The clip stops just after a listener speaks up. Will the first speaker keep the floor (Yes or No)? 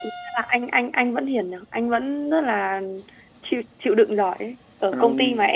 Yes